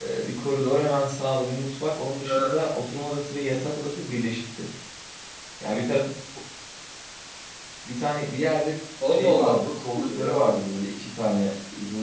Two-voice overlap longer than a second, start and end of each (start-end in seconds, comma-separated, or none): 9.1-10.6